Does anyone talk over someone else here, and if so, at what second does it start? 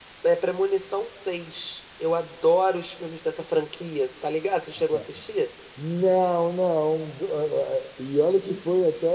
none

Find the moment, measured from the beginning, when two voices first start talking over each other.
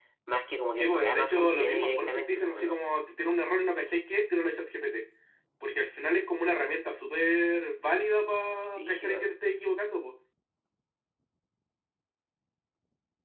0.7 s

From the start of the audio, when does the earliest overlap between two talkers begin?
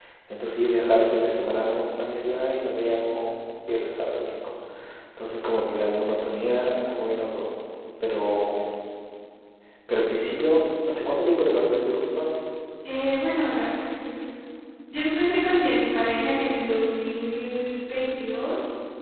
none

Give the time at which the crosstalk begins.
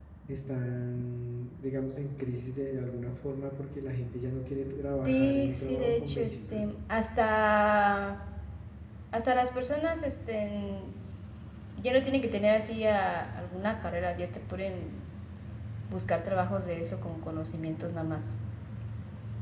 5.0 s

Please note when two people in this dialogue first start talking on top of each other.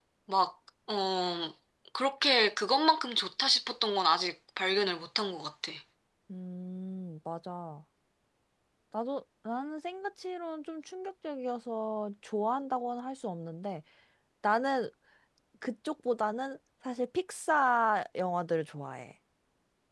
none

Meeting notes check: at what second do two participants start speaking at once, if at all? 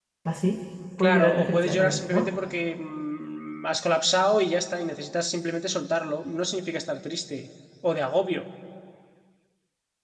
1.0 s

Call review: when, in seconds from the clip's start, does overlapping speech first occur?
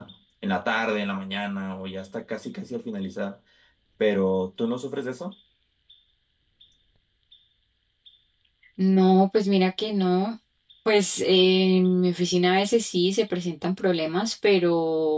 none

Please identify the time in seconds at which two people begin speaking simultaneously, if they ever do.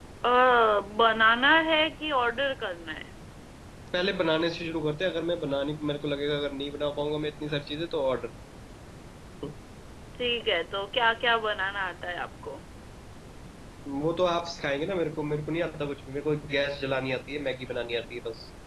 none

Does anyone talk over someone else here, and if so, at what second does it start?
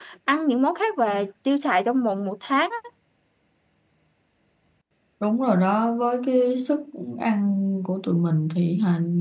none

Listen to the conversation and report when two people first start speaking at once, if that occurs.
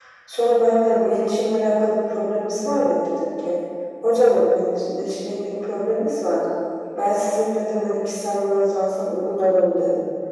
none

